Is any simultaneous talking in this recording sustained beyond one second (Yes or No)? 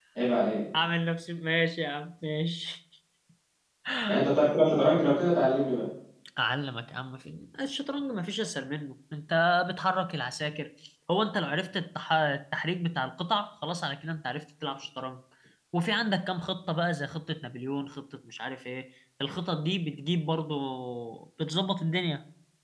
No